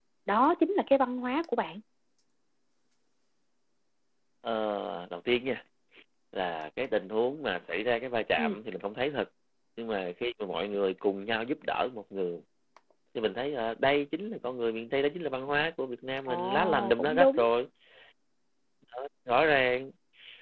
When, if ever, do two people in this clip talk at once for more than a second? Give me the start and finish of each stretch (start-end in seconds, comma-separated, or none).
16.3-17.5